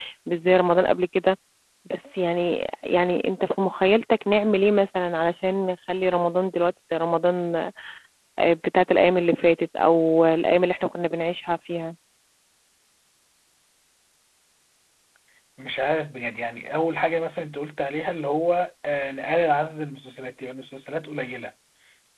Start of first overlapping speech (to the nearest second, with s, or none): none